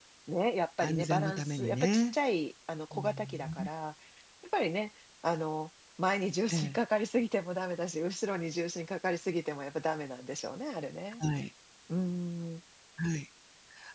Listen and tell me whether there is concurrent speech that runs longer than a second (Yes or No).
Yes